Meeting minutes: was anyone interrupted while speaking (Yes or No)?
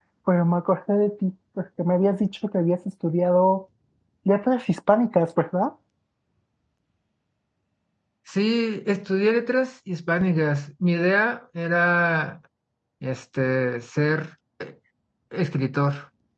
No